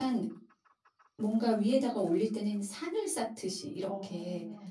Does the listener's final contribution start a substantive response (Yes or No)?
No